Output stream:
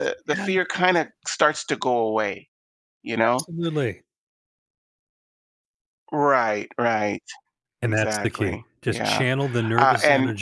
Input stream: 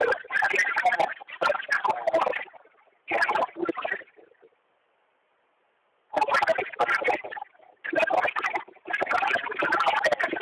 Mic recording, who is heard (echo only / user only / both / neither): echo only